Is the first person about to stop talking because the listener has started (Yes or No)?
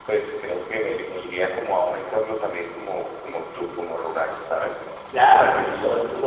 Yes